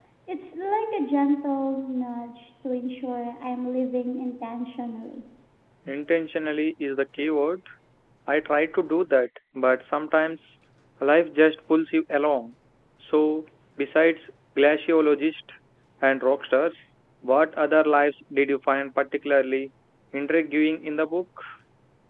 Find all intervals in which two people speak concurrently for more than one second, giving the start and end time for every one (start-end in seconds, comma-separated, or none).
none